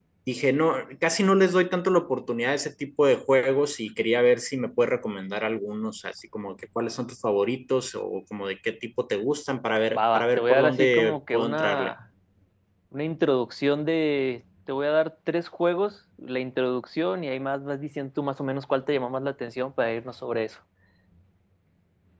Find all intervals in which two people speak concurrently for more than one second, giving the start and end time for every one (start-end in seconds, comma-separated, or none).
10.0-11.9